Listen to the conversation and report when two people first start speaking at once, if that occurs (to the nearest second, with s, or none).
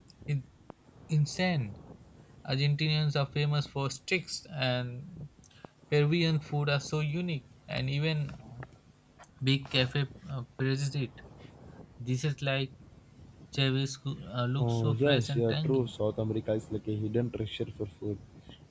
15 s